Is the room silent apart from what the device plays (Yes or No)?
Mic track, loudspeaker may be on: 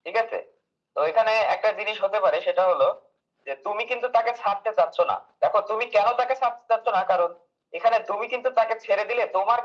Yes